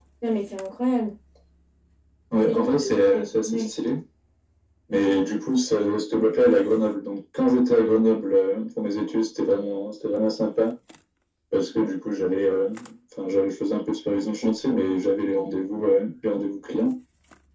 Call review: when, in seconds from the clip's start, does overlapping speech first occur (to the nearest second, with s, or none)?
2 s